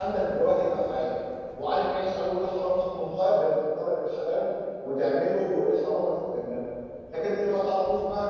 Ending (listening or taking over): listening